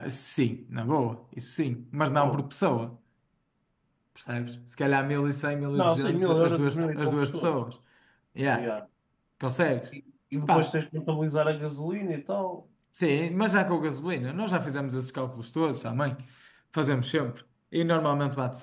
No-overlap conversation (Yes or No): No